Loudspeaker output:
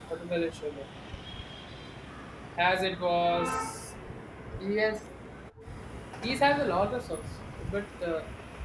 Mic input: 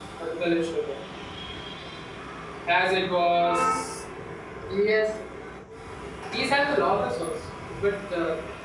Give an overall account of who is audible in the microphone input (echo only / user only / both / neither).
echo only